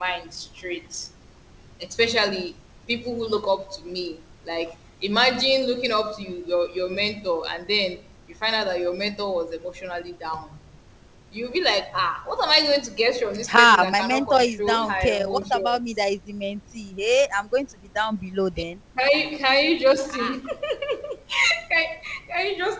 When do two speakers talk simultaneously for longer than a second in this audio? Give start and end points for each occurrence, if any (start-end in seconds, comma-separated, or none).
13.5-15.8